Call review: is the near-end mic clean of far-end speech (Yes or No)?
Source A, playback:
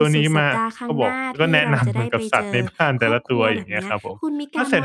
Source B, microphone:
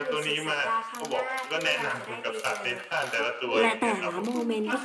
No